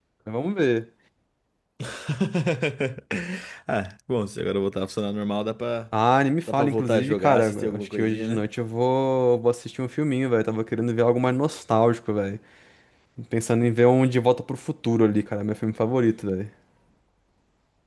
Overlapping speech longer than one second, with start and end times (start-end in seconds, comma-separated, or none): 6.5-8.4